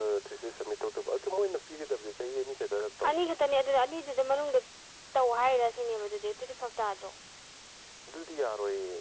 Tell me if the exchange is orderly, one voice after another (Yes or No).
Yes